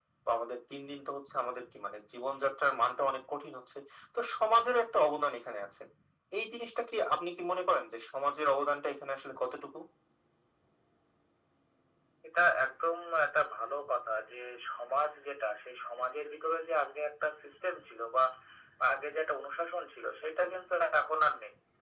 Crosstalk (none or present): none